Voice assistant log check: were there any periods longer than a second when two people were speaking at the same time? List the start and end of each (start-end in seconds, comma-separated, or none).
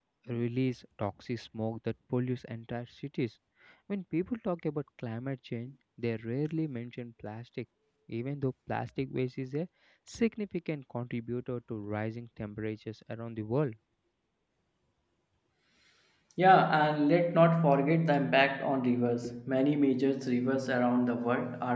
none